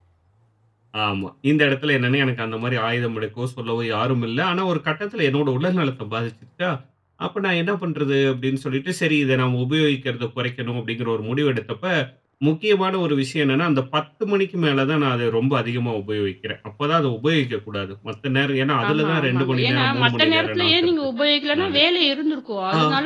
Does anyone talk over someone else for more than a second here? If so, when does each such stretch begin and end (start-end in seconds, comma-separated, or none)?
18.9-20.9